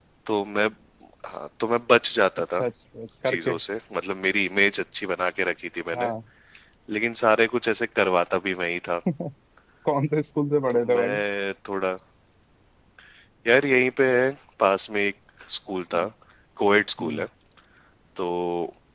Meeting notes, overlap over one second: none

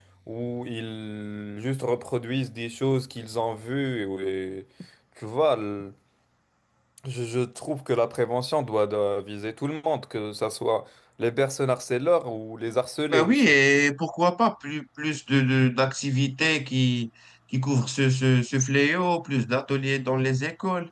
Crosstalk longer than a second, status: none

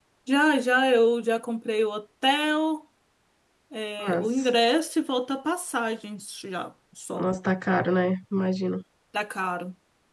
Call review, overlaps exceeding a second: none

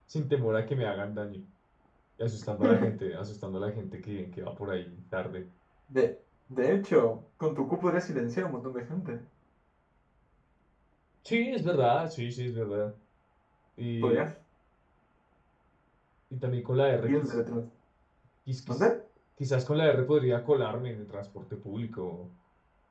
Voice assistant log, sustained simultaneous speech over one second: none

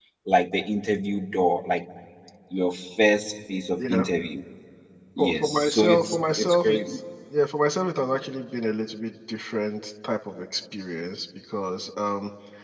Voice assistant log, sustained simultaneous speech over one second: present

